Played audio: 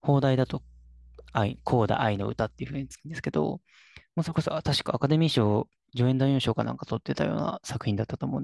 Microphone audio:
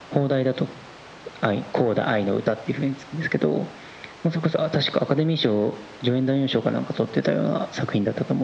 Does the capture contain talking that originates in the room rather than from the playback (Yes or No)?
No